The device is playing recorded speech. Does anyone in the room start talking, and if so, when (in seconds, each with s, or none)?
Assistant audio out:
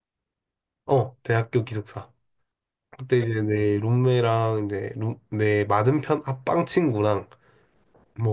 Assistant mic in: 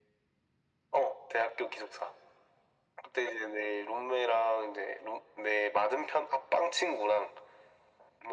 none